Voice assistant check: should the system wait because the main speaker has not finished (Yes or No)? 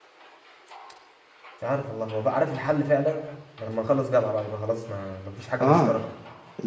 No